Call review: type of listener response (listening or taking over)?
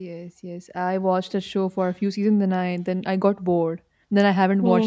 taking over